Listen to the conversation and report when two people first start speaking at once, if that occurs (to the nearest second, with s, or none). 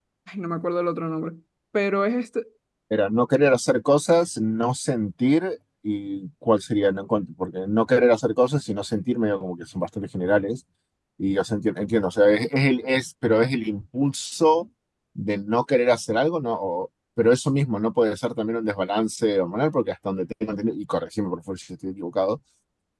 none